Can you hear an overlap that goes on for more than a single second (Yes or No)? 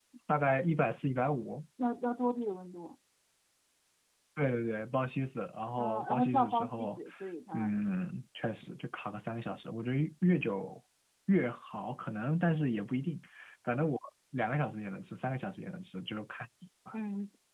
Yes